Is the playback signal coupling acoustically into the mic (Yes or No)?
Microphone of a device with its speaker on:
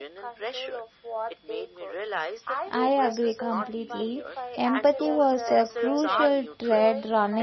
Yes